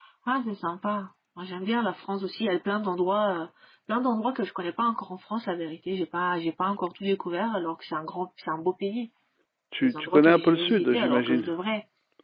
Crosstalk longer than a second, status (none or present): present